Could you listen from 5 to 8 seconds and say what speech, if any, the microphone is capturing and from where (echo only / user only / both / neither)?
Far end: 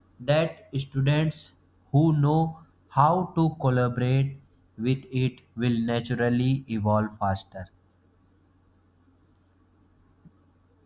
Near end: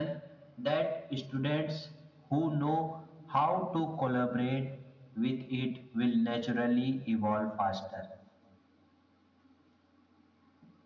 echo only